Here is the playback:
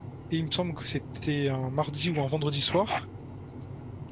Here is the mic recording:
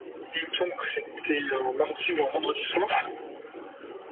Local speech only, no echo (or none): none